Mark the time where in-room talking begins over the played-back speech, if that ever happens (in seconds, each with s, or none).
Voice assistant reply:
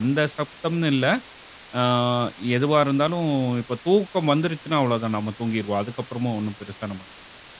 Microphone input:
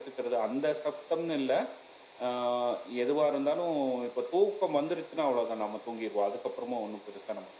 none